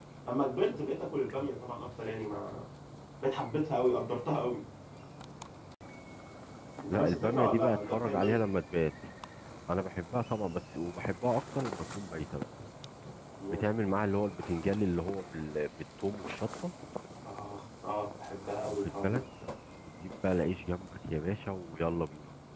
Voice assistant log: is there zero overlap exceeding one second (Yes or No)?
No